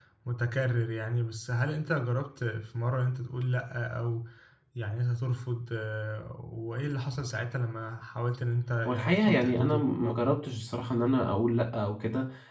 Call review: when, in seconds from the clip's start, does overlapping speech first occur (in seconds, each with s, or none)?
8.8 s